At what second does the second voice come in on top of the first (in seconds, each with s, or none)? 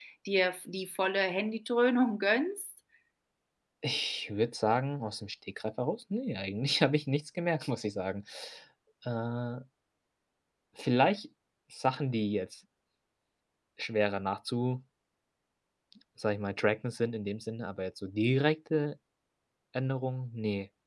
none